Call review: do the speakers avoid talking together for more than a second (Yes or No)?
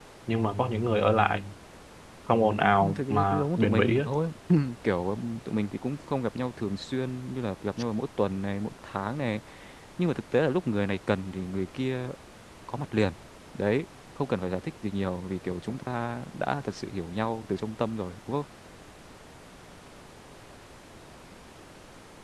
No